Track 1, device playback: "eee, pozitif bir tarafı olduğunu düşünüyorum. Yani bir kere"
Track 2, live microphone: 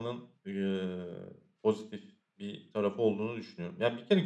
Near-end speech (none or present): none